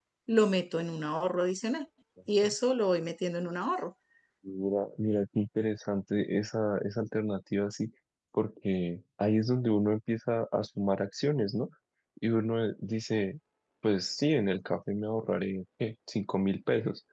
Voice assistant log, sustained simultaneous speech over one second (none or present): none